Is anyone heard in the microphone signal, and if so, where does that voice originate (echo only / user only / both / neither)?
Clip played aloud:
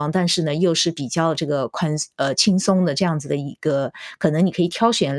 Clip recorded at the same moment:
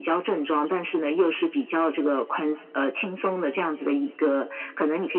echo only